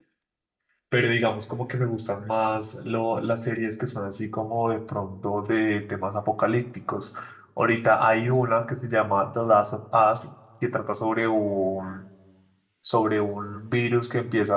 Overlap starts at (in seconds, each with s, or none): none